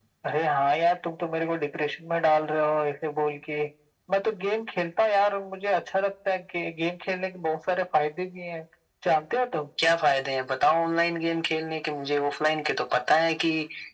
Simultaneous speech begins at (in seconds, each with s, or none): none